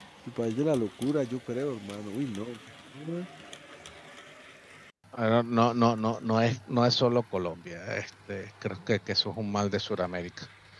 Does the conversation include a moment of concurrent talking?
No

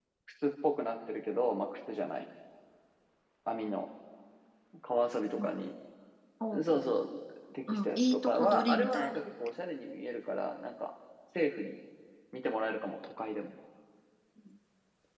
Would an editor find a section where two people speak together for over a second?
Yes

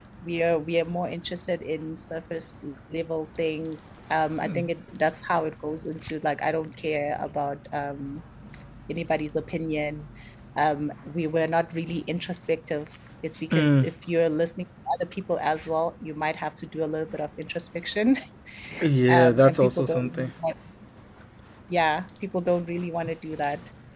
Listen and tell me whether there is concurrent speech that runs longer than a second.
Yes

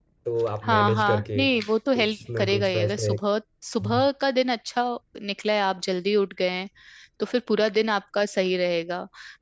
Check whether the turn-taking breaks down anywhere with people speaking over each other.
Yes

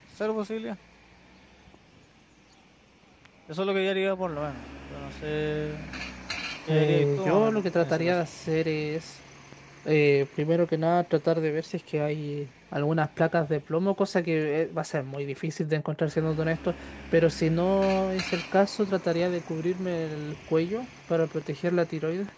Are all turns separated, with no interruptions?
No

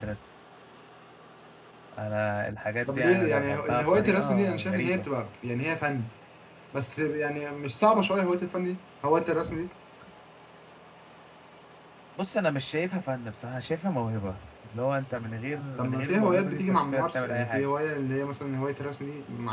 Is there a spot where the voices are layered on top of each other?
Yes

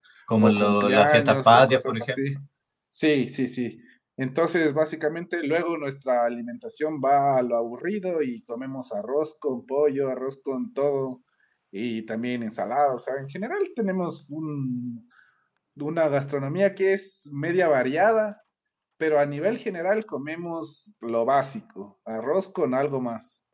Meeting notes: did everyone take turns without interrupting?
No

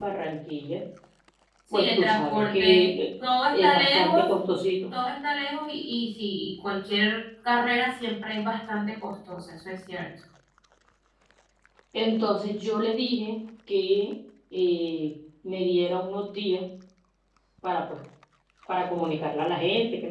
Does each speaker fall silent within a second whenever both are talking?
No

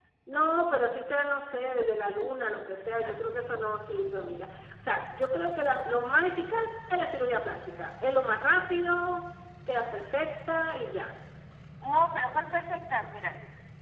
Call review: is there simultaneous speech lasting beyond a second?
No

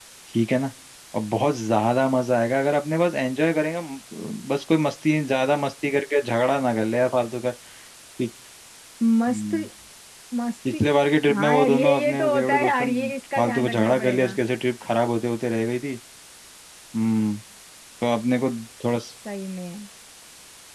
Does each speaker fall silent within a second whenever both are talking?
No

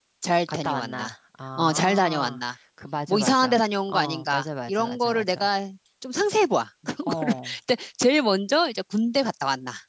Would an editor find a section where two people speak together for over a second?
Yes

